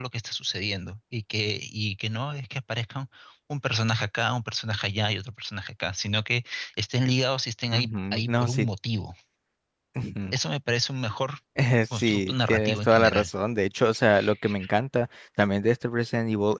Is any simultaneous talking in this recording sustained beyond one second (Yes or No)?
Yes